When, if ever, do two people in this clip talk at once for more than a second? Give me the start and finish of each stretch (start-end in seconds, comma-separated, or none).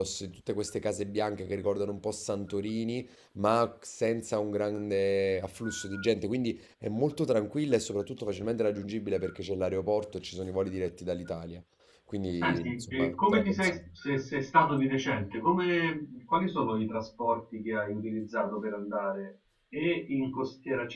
12.4-13.8